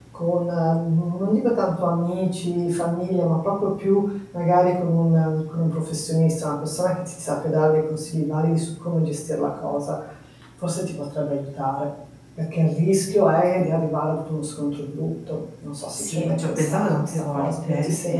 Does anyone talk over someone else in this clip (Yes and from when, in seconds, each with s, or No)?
Yes, from 15.9 s